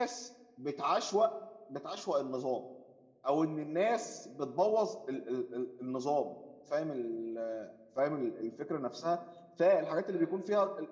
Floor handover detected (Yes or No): No